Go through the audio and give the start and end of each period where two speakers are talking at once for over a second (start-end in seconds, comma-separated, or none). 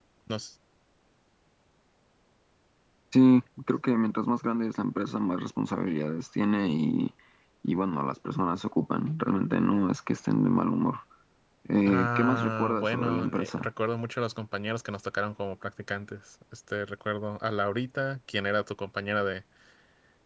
11.8-13.7